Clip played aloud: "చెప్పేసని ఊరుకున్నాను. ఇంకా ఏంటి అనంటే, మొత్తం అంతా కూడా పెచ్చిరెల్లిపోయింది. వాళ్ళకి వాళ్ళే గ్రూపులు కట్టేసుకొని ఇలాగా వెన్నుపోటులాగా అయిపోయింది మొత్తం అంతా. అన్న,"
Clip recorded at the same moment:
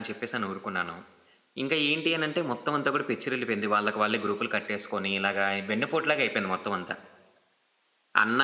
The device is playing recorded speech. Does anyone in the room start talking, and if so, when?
none

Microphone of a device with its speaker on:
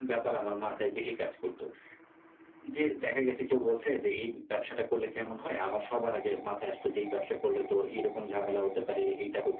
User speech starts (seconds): none

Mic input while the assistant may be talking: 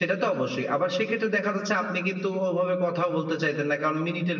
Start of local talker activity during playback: none

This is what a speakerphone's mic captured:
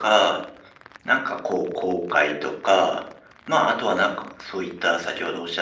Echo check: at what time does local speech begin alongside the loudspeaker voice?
none

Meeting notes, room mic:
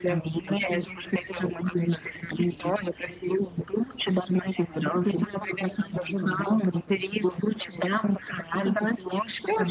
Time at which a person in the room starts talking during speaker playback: none

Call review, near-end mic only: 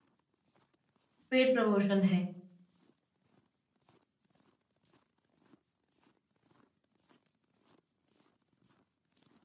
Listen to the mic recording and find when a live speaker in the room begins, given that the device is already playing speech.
1.3 s

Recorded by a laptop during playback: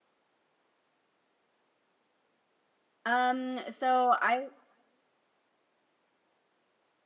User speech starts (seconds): 3.0 s

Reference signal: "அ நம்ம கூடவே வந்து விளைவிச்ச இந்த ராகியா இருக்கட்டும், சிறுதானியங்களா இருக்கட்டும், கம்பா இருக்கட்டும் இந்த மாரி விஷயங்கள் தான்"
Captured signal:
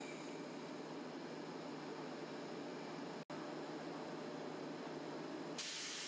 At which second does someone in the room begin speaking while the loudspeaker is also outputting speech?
none

